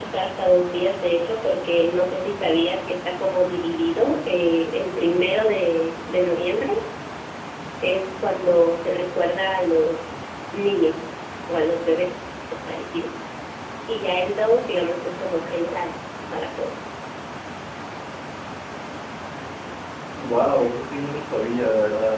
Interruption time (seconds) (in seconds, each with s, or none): none